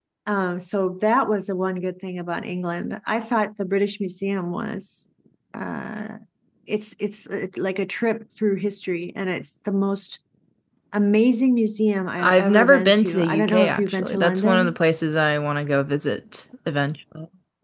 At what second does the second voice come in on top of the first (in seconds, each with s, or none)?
12.2 s